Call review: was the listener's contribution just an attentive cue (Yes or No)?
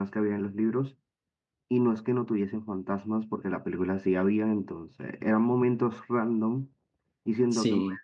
Yes